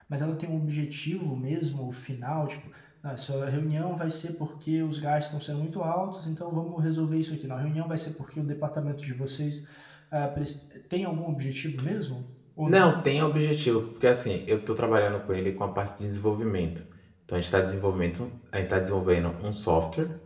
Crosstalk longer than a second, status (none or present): none